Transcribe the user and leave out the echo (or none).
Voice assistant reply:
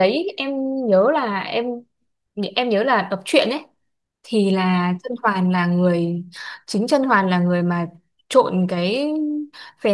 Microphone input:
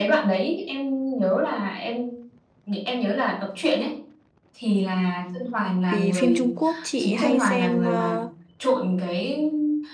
Vì phim Trung Quốc chị hay xem ờ,